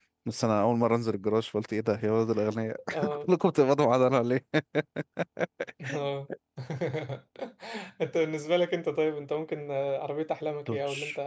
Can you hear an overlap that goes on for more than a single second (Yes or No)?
No